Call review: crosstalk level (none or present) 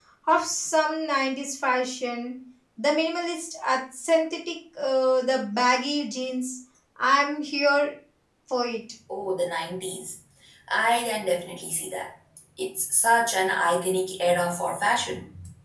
none